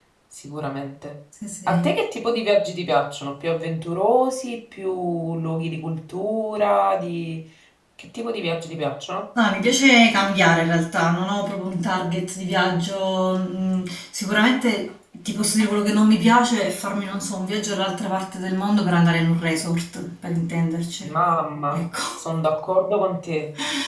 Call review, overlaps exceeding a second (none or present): none